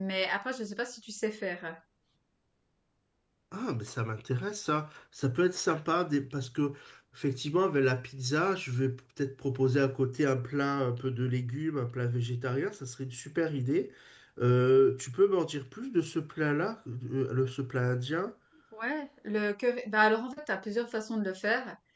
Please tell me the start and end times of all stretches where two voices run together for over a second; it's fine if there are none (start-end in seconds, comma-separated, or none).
none